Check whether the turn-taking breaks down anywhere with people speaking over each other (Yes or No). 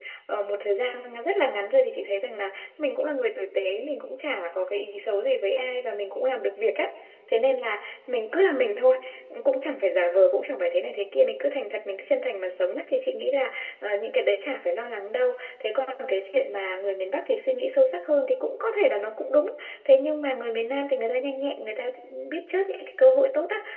No